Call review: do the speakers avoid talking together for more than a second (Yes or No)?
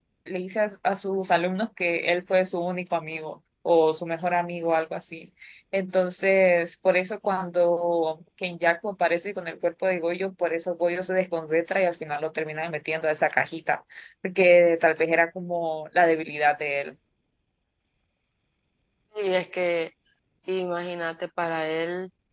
Yes